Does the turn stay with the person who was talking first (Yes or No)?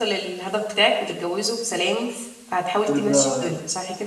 No